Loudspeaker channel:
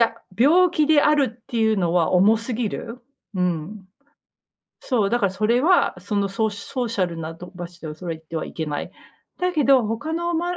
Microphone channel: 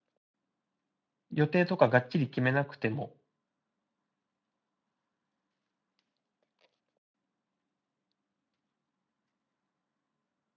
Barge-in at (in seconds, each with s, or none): 1.3 s